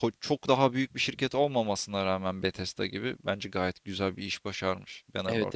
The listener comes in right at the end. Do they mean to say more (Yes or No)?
Yes